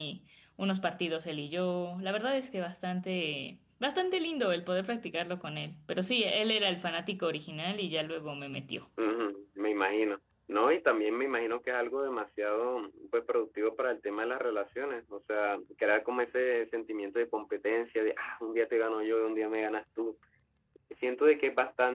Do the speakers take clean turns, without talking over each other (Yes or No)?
Yes